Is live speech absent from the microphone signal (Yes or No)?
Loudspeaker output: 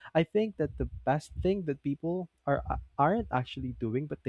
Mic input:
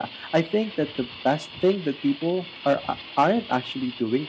Yes